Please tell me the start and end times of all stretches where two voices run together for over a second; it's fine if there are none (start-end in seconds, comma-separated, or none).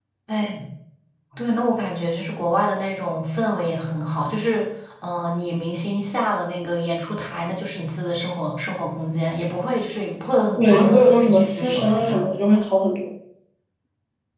10.6-12.2